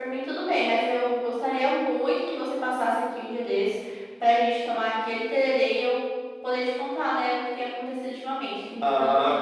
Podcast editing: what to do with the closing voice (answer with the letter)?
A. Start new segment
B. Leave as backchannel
A